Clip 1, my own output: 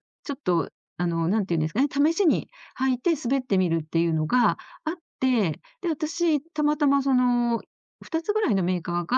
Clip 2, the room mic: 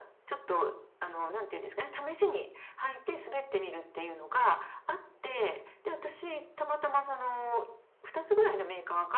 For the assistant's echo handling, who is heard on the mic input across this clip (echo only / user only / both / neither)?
echo only